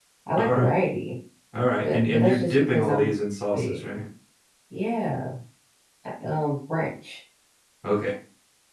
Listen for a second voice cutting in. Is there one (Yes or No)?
Yes